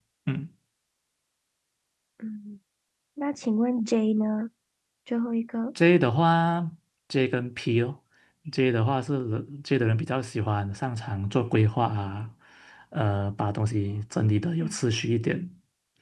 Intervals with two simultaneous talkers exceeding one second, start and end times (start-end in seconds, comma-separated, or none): none